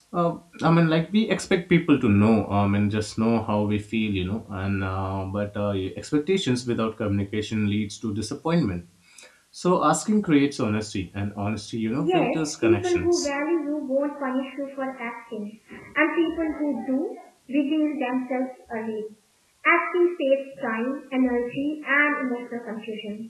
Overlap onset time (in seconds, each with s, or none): 12.0 s